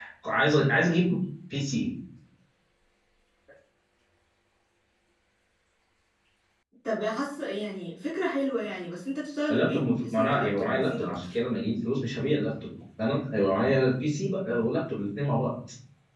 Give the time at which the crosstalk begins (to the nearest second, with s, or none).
9 s